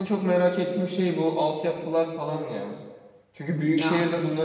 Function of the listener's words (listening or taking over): listening